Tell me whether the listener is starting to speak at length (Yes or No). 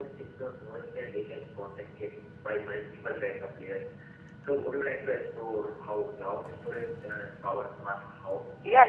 Yes